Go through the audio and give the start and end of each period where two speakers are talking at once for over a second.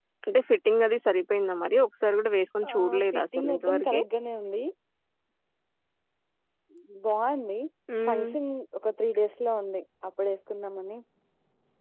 2.7-4.0

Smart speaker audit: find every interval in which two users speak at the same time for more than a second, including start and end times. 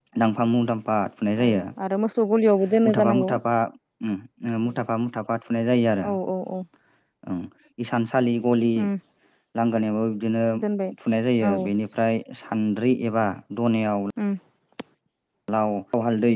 none

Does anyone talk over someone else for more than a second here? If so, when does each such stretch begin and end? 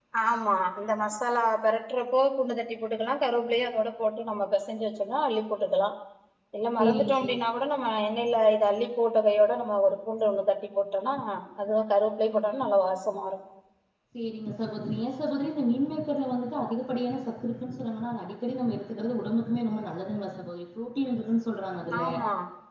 none

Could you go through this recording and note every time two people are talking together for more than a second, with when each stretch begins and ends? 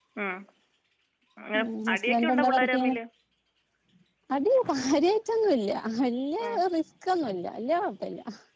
1.6-3.0

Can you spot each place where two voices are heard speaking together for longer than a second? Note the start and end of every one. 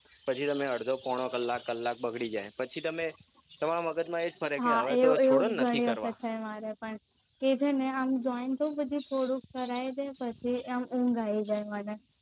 4.6-6.1

